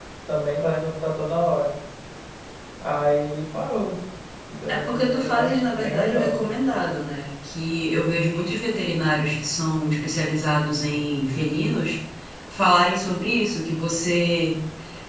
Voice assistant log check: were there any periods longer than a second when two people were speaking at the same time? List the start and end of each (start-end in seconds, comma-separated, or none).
4.7-6.3